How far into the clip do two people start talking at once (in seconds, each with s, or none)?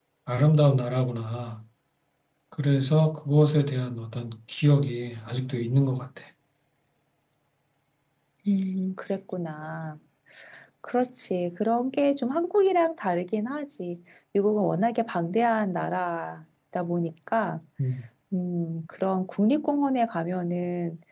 none